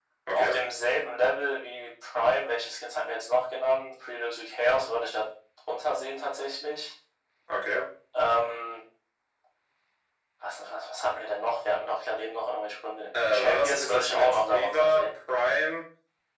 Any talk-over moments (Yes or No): Yes